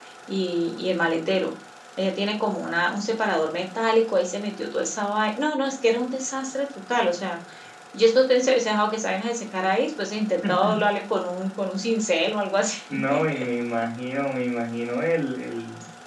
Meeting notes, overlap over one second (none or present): none